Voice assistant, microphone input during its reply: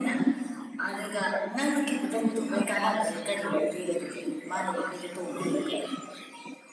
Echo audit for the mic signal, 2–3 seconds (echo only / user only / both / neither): echo only